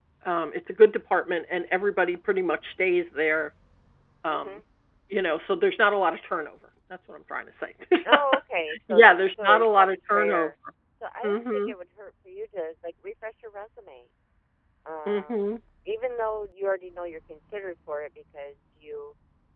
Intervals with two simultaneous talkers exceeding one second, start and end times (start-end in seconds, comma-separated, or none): 8.9-10.5